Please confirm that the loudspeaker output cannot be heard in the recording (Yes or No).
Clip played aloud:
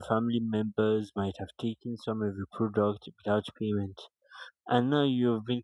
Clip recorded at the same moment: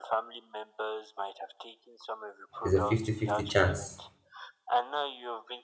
No